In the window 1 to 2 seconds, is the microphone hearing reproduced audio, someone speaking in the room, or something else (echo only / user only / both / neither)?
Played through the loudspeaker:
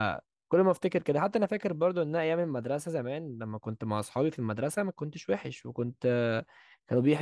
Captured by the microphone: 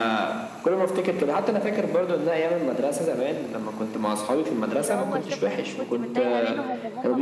echo only